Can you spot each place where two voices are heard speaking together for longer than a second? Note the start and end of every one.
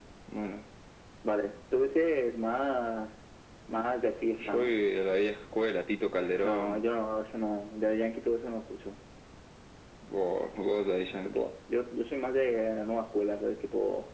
none

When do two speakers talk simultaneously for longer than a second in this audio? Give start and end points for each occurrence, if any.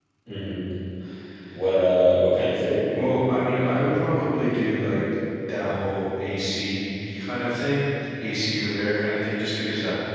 3.6-4.9

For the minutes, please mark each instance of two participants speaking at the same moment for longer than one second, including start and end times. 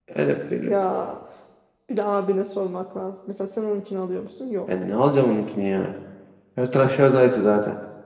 none

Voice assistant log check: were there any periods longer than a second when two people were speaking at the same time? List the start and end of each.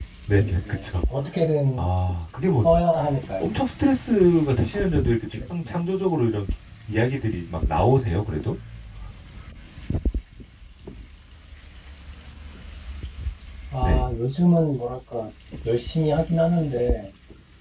none

